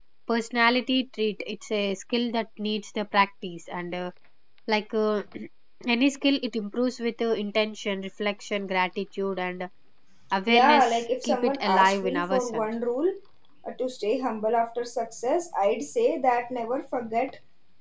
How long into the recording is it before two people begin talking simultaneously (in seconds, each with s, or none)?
10.5 s